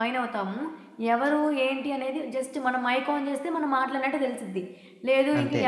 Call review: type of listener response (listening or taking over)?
listening